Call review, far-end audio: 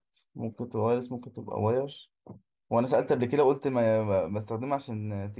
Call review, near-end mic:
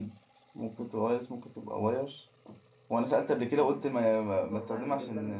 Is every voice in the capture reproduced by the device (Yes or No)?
No